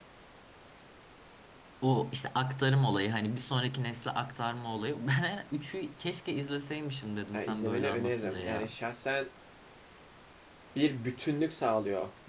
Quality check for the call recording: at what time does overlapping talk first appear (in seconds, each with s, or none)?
7.3 s